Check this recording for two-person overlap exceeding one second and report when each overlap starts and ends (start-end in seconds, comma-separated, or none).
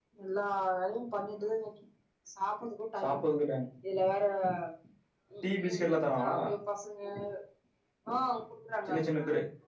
none